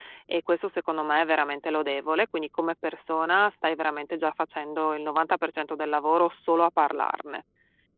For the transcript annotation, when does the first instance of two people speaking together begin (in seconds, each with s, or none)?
none